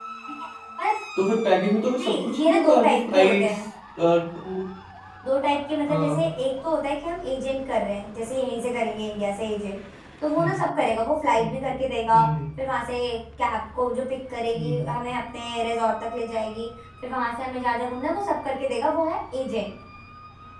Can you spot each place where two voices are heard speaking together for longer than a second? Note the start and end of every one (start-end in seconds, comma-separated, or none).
2.0-3.6